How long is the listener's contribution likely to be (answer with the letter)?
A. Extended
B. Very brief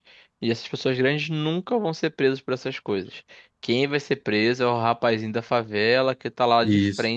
B